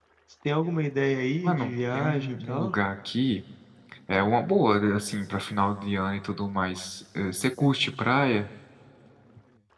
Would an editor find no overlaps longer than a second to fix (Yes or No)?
No